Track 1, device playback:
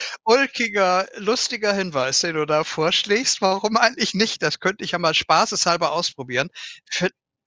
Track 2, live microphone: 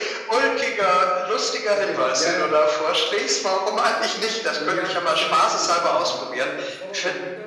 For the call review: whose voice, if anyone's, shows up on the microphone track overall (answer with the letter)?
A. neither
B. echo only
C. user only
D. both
D